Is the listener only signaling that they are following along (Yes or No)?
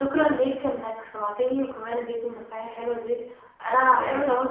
Yes